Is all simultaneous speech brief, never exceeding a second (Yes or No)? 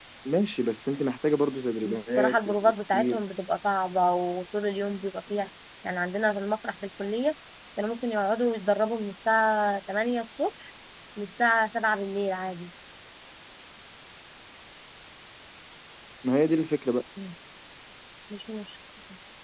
No